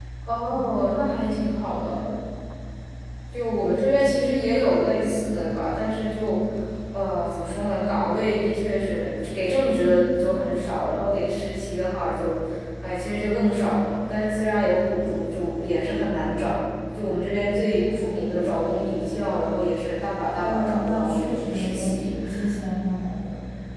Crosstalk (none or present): present